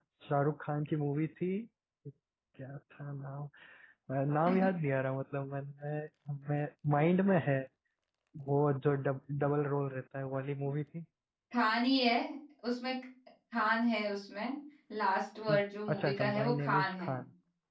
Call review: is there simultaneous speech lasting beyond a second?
Yes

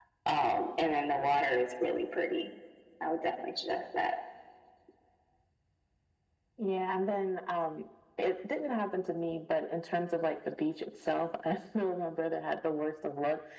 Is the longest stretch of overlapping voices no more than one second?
Yes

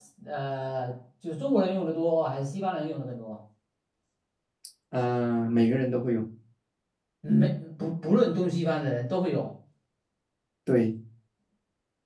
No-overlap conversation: Yes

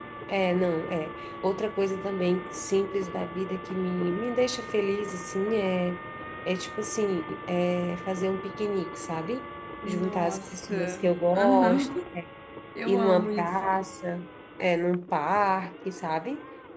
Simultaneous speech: Yes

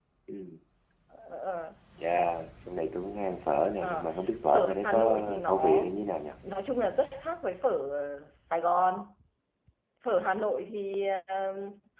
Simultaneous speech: Yes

